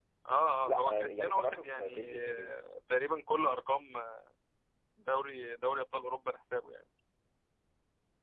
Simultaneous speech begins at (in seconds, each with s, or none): 0.6 s